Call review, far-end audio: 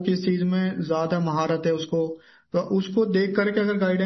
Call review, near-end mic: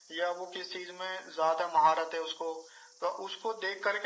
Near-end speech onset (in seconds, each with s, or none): none